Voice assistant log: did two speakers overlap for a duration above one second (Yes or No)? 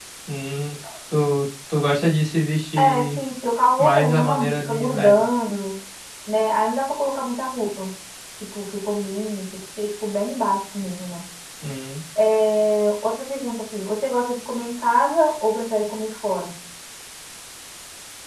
Yes